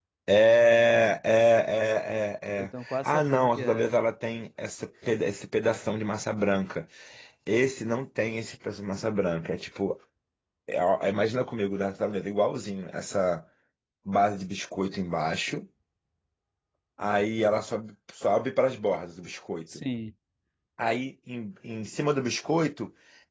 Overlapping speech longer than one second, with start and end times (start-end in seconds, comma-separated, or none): 2.6-3.9